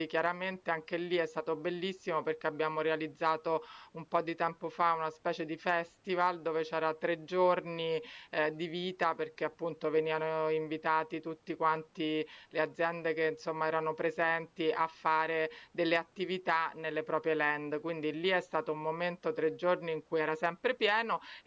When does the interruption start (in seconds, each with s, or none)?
none